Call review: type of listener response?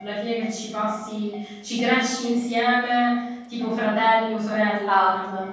taking over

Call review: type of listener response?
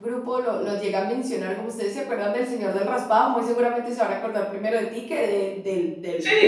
taking over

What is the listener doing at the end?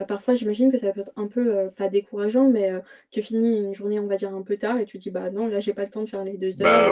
listening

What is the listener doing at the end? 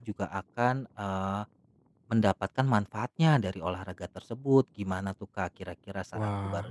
taking over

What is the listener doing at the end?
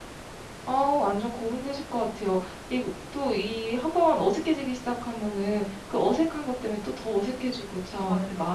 listening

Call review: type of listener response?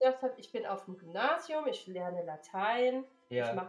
listening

